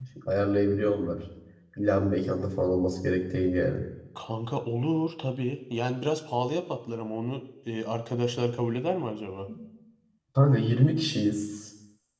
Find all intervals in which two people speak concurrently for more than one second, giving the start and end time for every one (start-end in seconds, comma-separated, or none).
none